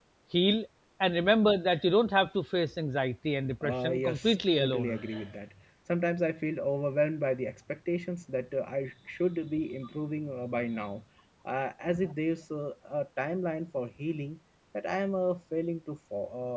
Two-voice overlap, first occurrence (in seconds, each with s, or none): 3.6 s